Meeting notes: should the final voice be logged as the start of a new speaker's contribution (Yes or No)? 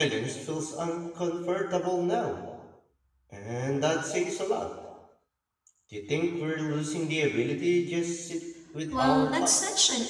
Yes